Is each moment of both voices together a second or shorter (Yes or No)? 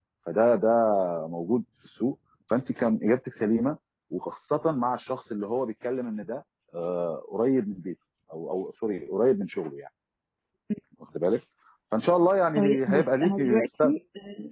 No